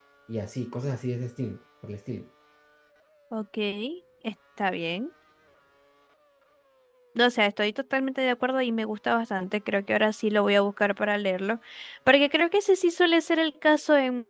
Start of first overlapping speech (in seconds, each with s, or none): none